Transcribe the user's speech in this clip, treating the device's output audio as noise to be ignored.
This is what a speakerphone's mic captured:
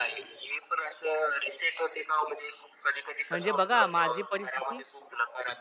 म्हणजे बघा माझी परिस्थिती

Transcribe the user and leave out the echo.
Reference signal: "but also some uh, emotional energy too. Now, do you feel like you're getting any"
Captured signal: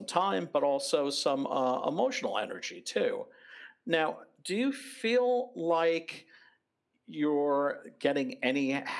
none

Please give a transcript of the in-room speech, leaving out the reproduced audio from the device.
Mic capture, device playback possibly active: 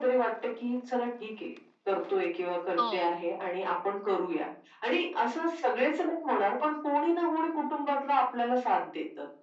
हो.

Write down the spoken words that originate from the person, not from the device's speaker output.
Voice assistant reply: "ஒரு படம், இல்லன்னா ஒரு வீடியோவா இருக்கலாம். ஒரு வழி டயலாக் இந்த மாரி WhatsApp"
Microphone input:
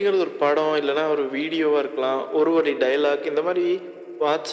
none

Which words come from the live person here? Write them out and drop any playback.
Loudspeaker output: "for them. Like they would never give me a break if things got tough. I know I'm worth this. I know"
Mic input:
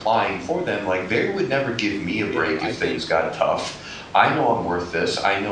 you know, I think

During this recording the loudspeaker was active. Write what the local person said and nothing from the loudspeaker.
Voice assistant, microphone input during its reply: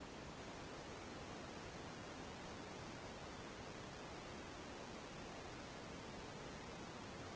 none

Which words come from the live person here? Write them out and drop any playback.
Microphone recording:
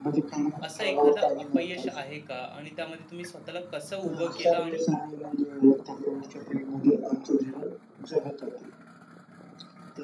असा एखादा अपयश आहे का आणि त्यामध्ये तुम्ही स्वतःला कसं उभं केलं आणि

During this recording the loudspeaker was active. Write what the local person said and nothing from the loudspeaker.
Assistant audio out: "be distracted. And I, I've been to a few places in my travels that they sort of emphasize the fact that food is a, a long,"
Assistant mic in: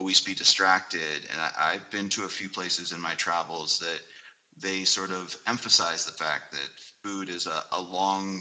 none

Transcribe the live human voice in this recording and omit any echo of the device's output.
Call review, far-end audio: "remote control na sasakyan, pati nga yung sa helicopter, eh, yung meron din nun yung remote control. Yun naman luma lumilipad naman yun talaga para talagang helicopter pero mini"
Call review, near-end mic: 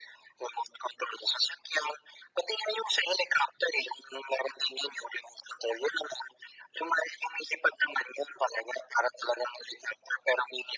none

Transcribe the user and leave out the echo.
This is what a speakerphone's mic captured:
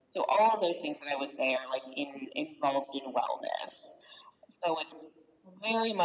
none

